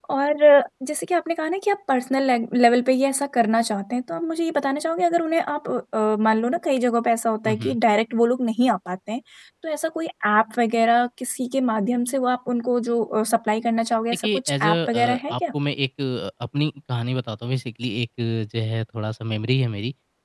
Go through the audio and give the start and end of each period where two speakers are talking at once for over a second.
14.1-15.3

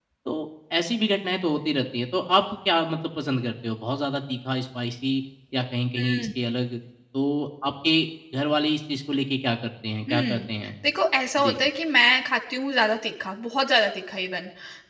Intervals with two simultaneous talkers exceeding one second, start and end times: none

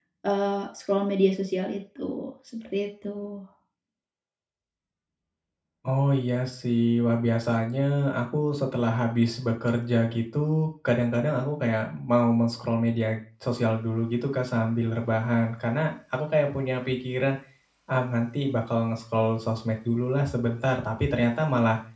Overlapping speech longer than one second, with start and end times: none

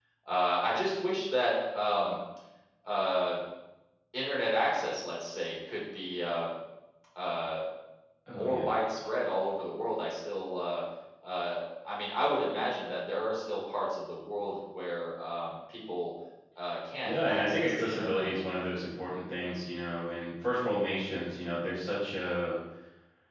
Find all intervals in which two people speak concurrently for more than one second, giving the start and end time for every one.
17.0-18.3

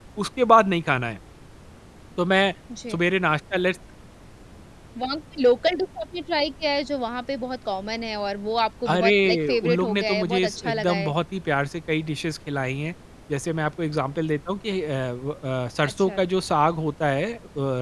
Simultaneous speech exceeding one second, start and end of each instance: 8.9-11.1

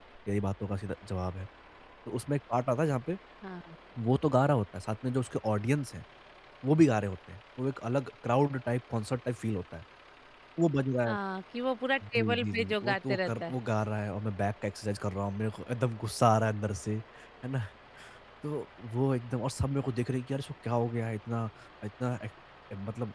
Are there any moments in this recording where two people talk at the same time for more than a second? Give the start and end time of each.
12.1-13.5

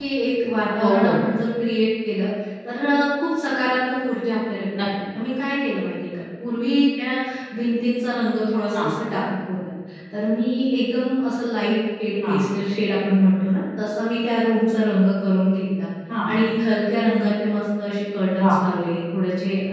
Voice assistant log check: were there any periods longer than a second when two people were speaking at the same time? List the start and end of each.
none

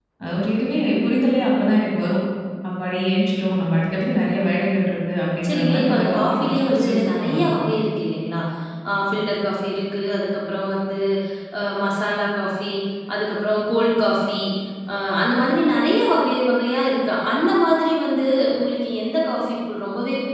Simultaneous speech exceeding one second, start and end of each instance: 5.4-7.6

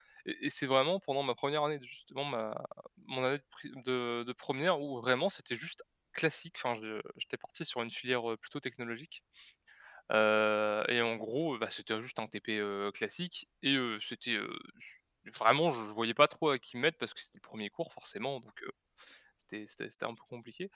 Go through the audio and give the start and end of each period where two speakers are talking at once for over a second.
none

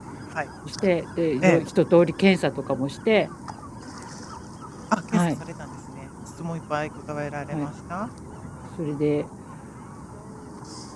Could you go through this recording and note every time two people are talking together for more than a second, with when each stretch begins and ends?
none

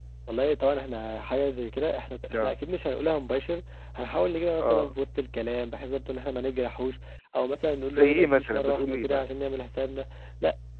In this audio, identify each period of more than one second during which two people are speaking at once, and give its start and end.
8.0-9.2

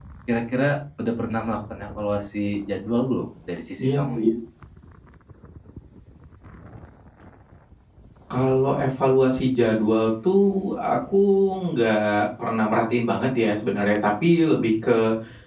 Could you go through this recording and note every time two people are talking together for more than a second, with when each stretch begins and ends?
none

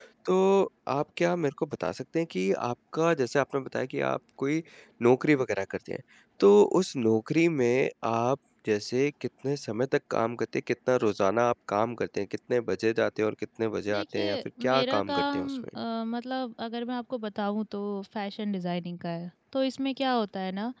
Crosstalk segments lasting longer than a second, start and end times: 13.9-15.7

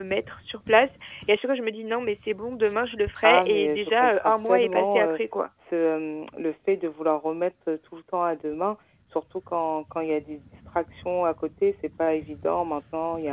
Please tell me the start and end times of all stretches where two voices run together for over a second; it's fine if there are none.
3.2-5.2

